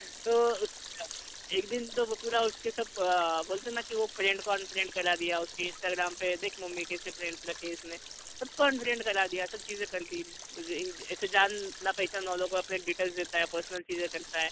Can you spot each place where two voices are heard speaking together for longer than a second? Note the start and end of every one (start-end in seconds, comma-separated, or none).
none